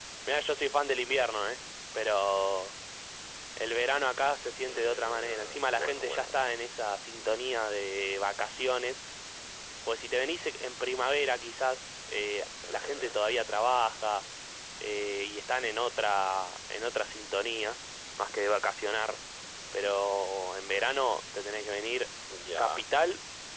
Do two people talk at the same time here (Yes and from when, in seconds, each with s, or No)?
Yes, from 4.7 s